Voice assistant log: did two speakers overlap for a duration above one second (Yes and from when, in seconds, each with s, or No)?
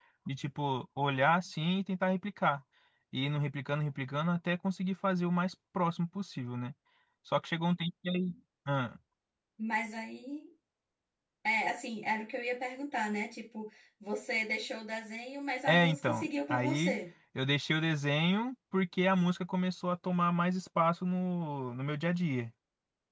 Yes, from 15.7 s